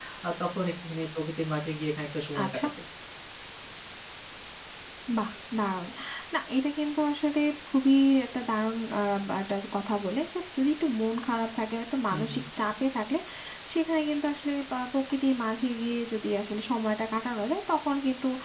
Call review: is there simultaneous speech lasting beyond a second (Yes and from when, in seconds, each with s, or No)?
No